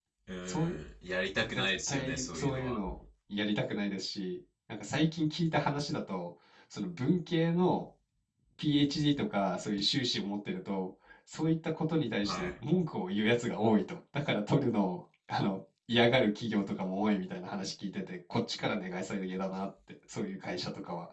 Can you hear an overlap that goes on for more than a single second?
Yes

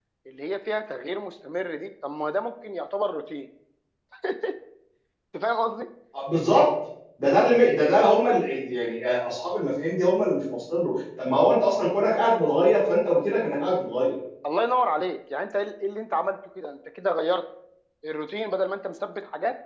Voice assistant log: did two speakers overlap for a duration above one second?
No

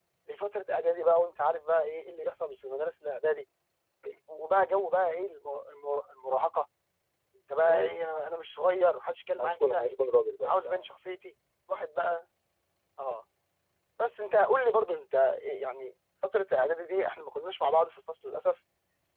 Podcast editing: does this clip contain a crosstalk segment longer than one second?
No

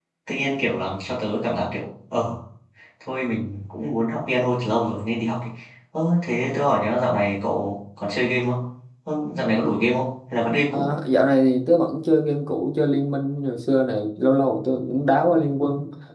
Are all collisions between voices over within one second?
Yes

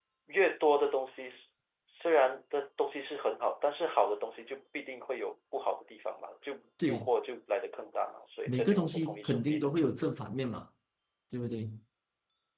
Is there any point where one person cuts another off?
Yes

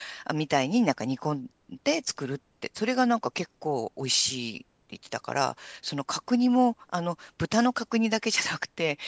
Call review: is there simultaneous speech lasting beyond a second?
No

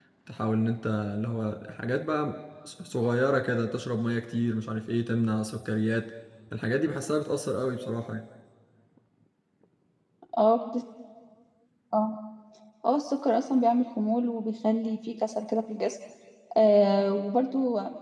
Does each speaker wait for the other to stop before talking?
Yes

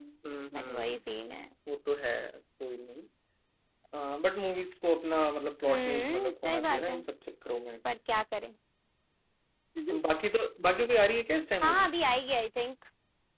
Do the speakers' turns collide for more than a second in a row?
Yes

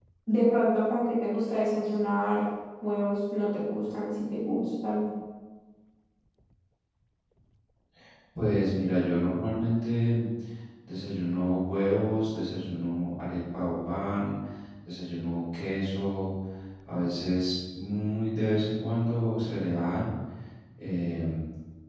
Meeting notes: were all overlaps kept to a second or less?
Yes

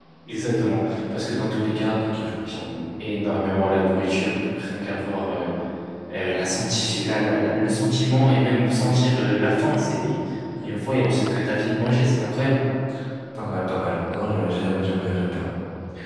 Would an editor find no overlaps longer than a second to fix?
Yes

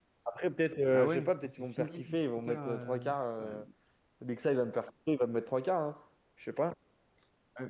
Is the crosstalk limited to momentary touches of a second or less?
No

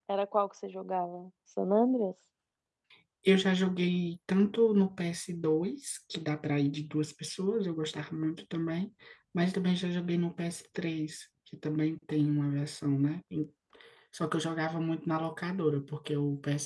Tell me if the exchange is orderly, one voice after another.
Yes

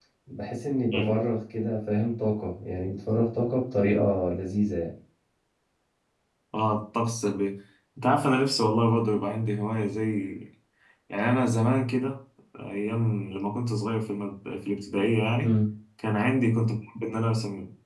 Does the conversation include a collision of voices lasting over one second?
No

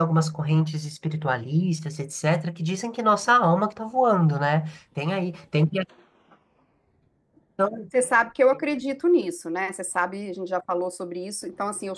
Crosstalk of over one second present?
No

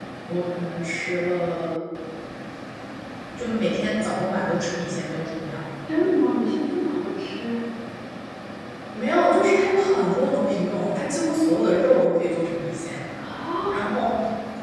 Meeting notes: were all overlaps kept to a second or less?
Yes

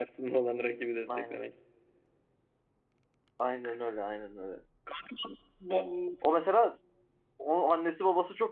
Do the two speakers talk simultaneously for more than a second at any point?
No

